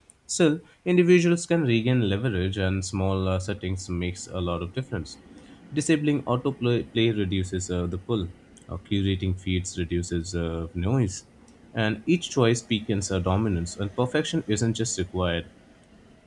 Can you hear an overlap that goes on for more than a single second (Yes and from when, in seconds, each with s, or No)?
No